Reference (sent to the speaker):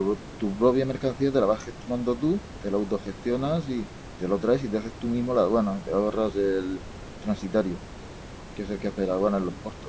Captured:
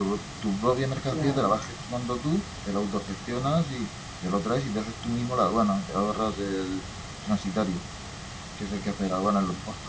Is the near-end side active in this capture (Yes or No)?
Yes